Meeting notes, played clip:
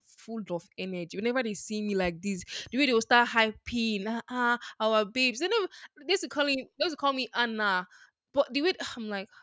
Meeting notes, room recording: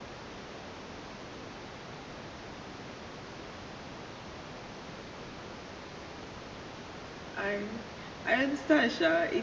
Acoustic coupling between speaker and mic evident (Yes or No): No